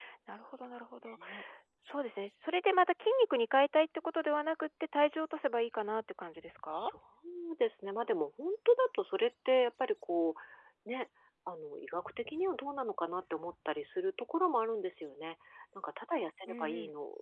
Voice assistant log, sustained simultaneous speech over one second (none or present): none